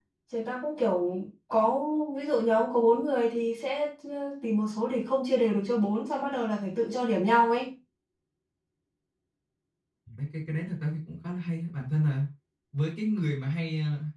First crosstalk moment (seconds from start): none

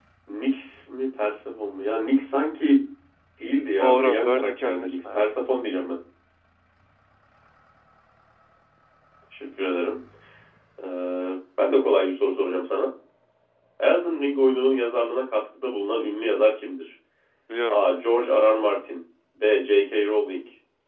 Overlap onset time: 3.8 s

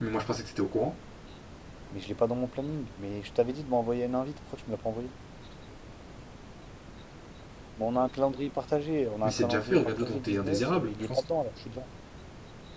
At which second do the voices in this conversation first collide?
9.2 s

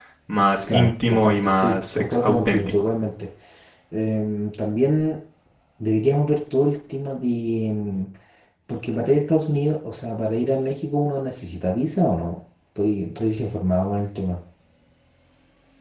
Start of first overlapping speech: 0.7 s

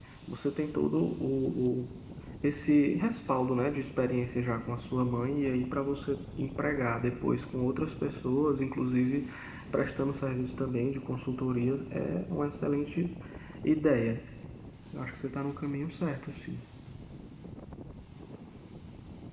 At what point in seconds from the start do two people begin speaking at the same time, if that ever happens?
none

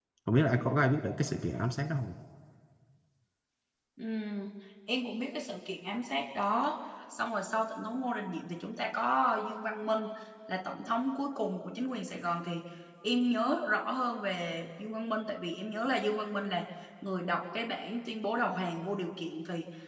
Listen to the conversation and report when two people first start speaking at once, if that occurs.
none

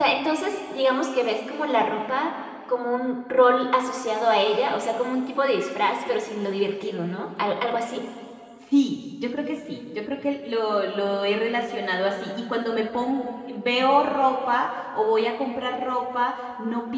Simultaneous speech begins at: none

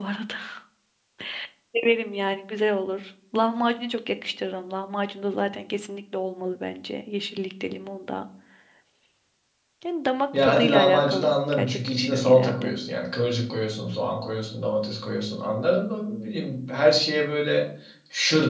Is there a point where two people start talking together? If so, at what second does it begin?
10.4 s

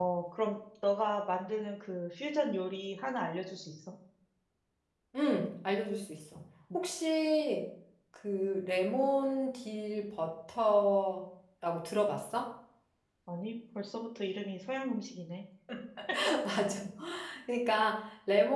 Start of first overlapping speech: none

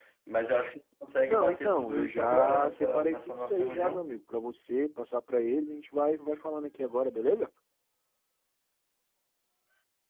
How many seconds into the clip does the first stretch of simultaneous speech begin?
1.3 s

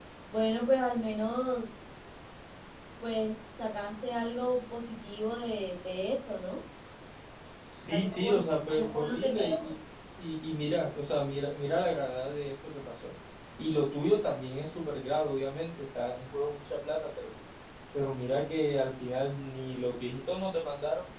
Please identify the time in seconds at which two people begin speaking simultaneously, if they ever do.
7.9 s

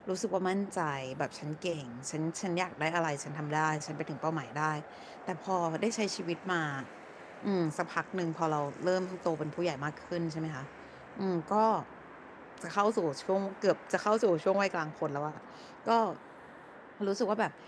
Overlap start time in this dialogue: none

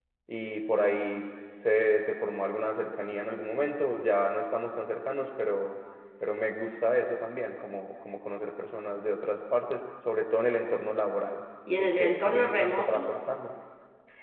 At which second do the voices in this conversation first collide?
11.7 s

